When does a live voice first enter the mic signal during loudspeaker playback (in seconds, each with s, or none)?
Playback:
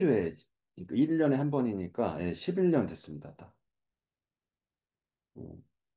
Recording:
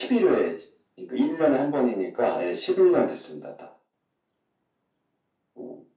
none